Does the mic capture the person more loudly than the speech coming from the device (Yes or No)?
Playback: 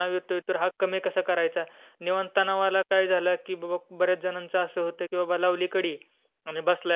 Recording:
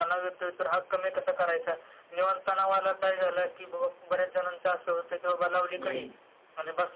Yes